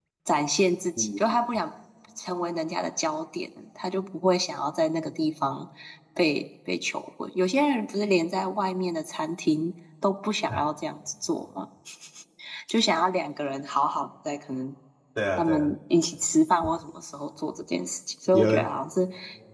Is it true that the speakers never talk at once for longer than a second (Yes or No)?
Yes